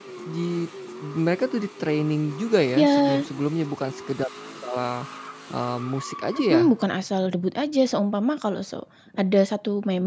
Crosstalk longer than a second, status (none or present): none